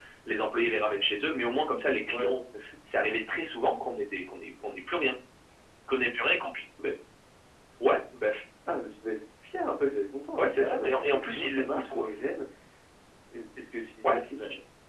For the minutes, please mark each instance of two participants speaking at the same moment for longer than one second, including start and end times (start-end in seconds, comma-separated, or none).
10.4-12.1